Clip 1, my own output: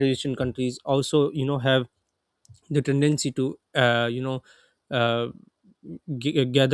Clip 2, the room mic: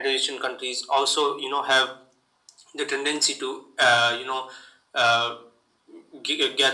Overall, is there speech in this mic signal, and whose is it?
echo only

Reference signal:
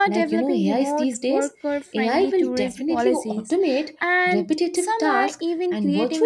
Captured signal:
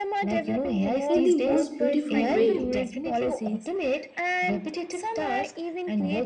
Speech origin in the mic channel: both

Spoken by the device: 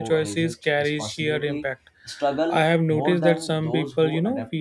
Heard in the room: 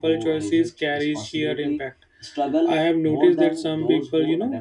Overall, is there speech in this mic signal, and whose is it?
echo only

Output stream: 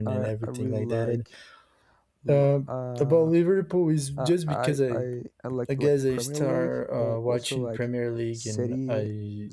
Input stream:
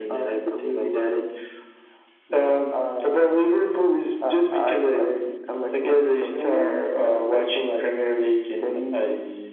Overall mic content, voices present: echo only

